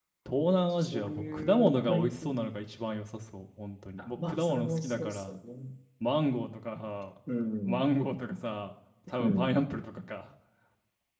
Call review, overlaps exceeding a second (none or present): present